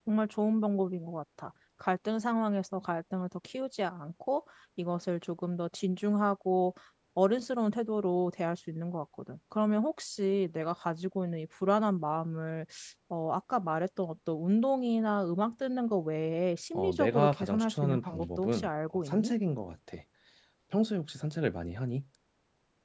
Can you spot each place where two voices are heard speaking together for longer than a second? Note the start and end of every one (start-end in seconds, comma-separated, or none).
16.7-19.3